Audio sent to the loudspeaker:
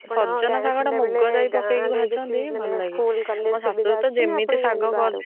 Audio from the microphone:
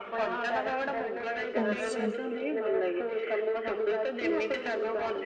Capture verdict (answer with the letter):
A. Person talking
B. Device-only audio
A